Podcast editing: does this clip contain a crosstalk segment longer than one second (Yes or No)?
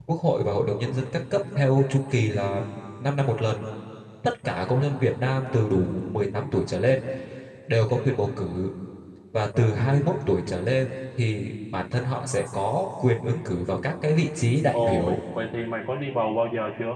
No